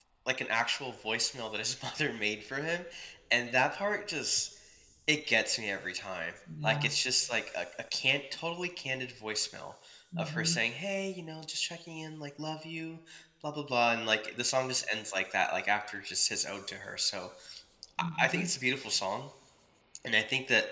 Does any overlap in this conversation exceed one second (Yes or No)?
No